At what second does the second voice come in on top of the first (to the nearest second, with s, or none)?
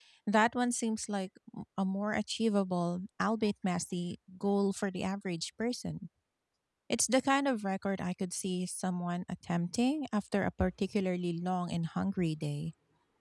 none